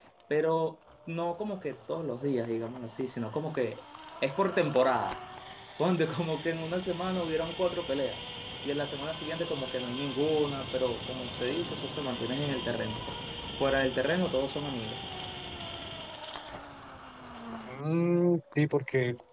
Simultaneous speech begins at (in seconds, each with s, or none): none